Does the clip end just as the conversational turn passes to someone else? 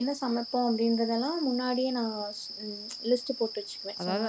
Yes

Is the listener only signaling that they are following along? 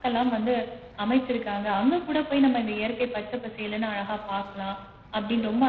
Yes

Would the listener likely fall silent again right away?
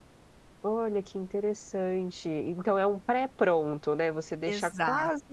Yes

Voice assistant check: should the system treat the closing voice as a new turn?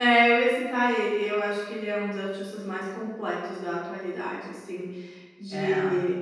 No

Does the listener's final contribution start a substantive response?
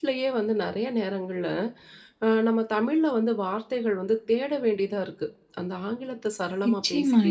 Yes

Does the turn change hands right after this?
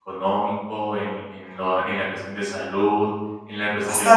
Yes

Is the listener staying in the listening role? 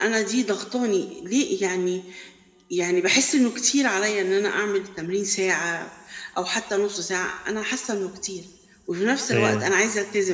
Yes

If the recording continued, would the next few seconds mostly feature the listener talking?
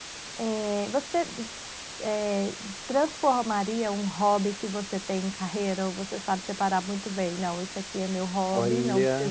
No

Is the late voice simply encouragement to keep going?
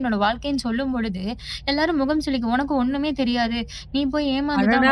No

